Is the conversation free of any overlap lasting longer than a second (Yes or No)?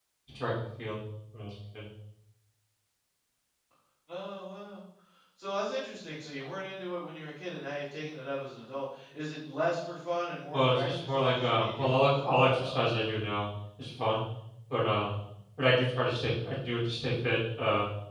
No